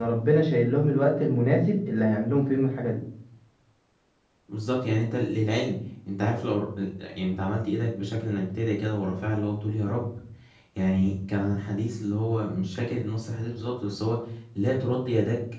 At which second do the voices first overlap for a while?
none

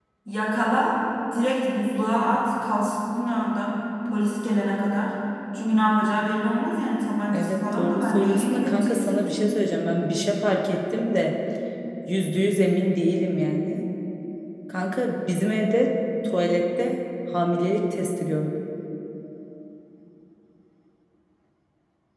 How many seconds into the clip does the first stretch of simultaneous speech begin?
7.3 s

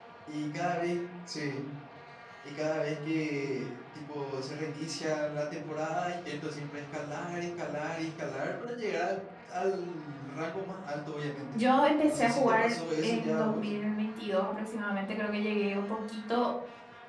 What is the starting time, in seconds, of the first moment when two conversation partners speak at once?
12.1 s

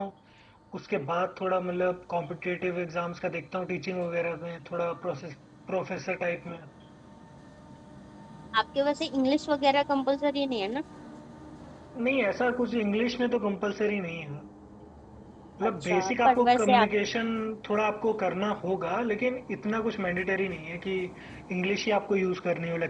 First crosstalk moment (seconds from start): 15.6 s

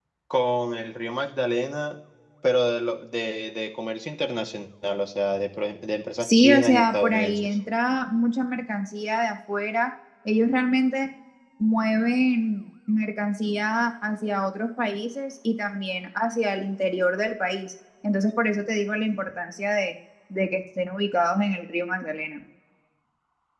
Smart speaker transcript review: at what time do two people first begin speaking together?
6.2 s

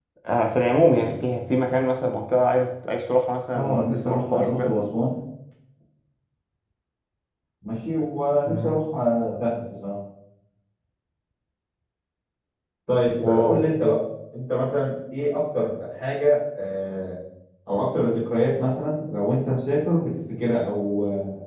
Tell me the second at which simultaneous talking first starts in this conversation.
3.5 s

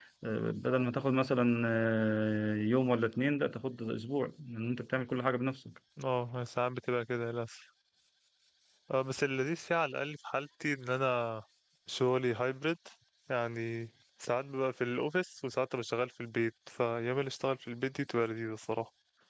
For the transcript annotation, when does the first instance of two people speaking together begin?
none

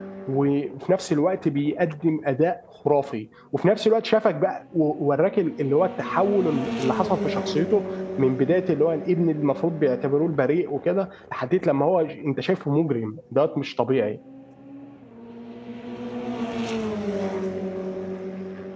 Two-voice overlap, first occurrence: none

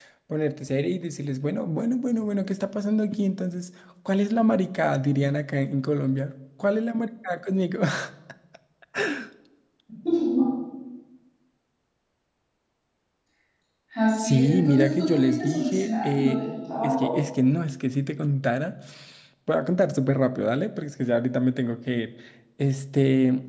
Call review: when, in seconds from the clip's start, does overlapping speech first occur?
14.2 s

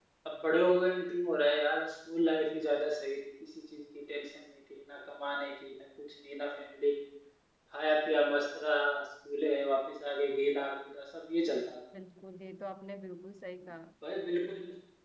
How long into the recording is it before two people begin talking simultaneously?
none

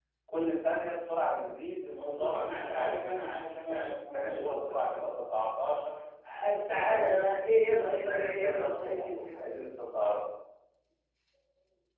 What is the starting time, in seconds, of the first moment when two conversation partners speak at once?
1.9 s

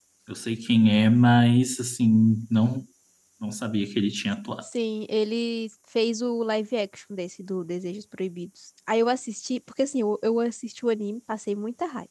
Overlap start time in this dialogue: none

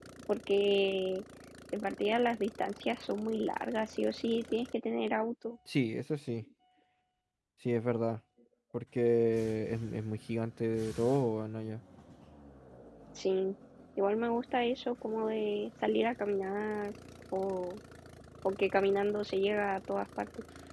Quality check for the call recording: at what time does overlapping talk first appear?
none

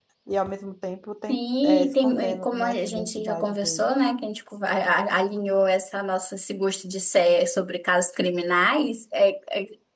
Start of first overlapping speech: 1.3 s

